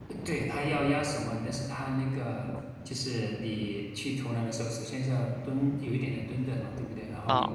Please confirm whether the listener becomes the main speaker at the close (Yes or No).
No